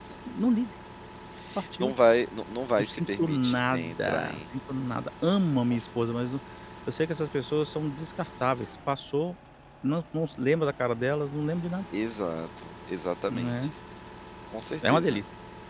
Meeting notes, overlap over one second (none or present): present